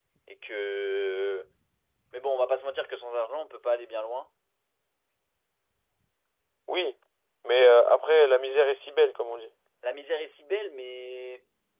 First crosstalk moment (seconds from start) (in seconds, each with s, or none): none